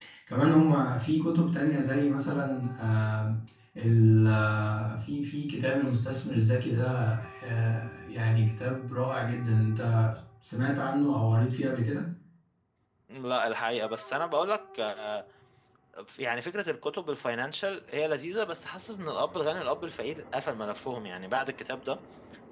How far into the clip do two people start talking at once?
none

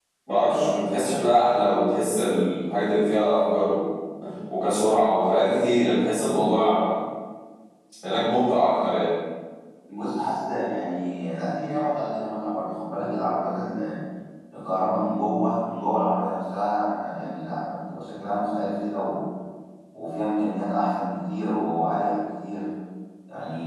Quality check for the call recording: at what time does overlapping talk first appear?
none

